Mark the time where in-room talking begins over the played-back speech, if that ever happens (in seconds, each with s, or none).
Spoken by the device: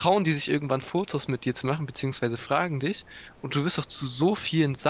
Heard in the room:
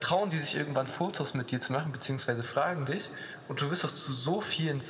none